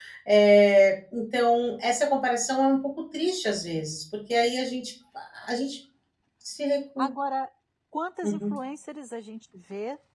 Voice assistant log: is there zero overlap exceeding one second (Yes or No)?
Yes